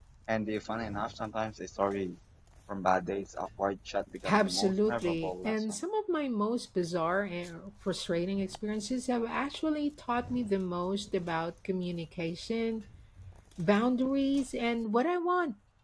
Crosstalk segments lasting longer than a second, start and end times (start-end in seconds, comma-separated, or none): 4.3-5.8